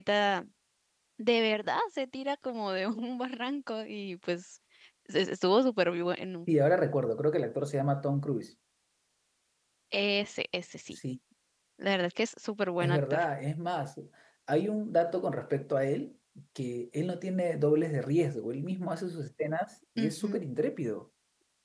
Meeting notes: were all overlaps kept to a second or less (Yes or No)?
Yes